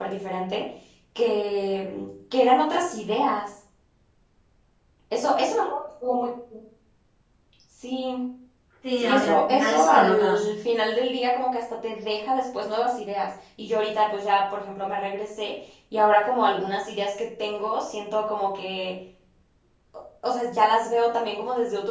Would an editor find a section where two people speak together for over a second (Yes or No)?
Yes